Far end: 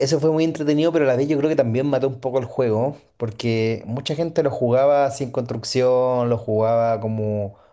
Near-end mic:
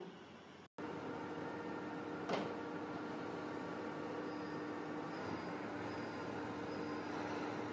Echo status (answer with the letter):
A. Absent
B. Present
A